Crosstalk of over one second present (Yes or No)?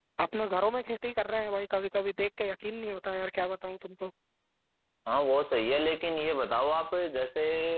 No